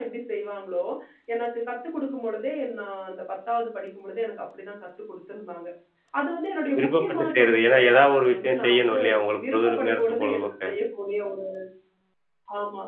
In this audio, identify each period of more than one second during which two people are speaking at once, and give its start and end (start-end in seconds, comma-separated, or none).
6.8-9.0, 9.5-10.7